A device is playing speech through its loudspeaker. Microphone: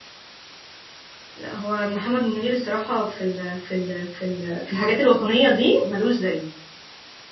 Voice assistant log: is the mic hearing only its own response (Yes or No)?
No